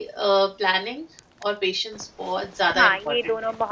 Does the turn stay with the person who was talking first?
No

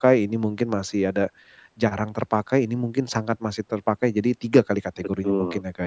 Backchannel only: No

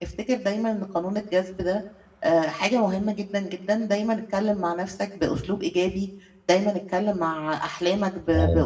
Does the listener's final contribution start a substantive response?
No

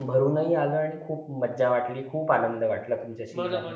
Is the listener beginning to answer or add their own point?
Yes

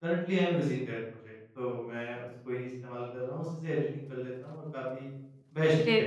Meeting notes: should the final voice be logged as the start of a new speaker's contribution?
Yes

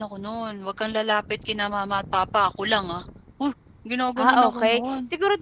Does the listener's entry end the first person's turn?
Yes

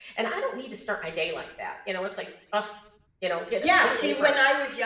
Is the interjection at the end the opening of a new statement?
Yes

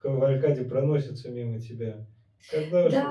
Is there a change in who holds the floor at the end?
Yes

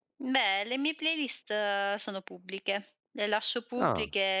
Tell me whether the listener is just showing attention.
Yes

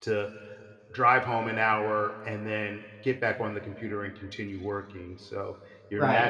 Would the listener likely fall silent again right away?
No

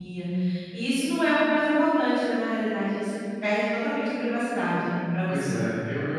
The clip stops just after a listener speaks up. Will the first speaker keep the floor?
No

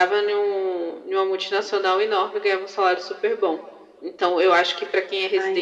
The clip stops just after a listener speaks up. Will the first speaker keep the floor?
Yes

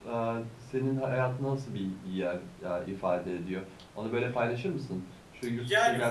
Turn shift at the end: Yes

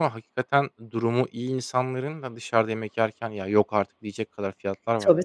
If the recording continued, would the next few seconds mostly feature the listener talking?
Yes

